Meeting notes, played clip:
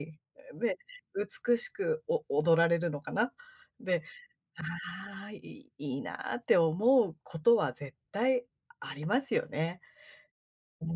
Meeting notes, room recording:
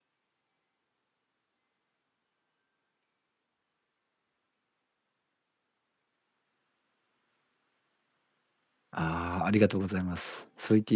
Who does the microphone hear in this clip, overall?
user only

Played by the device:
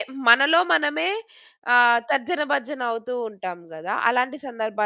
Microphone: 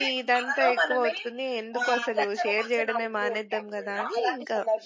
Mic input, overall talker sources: both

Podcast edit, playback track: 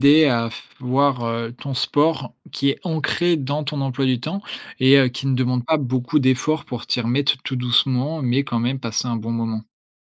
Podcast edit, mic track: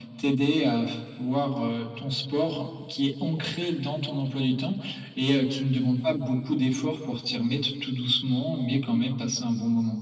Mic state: echo only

